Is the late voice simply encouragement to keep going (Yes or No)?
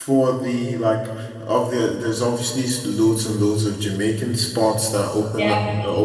Yes